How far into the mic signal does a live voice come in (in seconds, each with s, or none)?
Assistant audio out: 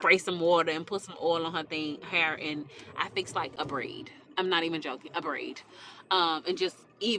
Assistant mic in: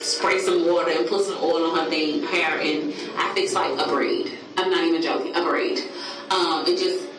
none